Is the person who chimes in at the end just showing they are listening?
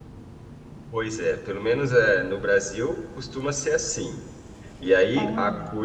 Yes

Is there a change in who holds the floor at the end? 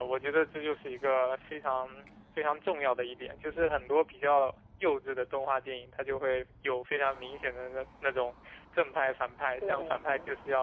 No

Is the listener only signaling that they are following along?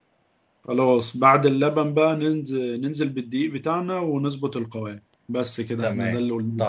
No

